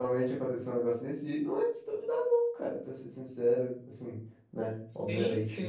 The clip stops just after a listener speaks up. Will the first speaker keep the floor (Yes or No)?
No